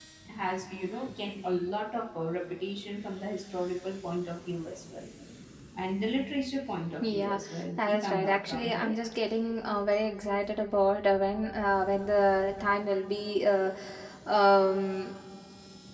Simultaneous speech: Yes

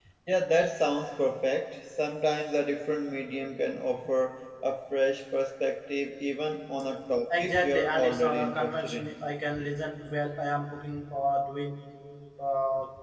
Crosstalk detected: Yes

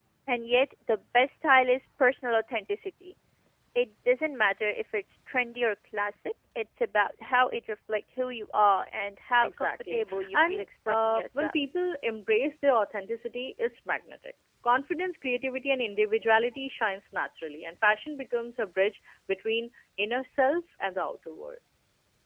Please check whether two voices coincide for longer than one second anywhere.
Yes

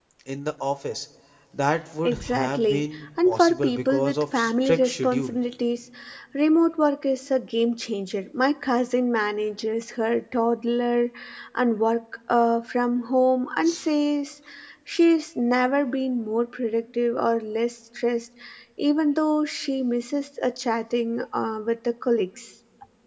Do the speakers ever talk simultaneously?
Yes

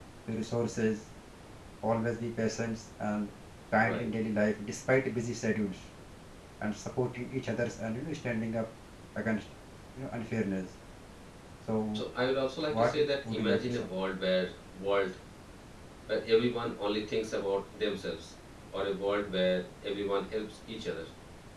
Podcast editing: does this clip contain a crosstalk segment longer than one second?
Yes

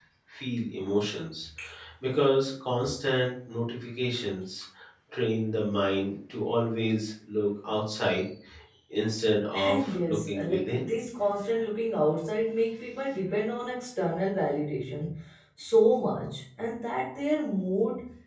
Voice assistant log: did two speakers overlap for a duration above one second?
Yes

